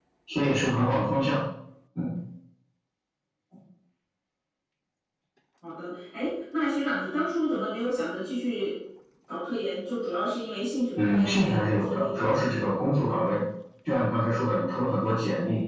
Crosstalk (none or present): present